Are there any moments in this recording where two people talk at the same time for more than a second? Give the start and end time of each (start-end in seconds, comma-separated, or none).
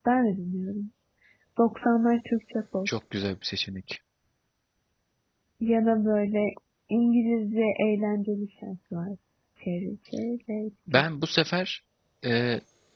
none